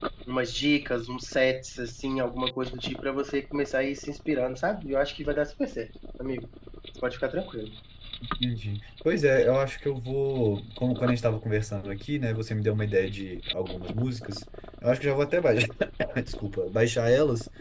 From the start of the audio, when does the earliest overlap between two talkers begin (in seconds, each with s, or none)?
none